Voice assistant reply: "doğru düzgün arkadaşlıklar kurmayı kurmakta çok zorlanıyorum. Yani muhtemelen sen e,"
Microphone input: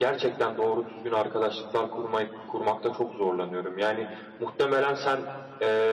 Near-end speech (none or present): none